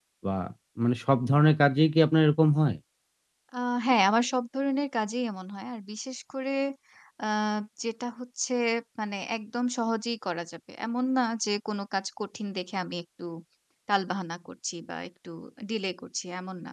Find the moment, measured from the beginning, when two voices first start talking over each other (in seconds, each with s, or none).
none